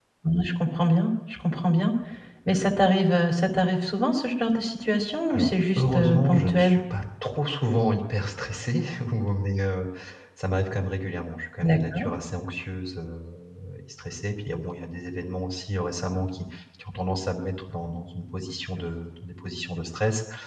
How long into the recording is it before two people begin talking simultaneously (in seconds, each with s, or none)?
5.3 s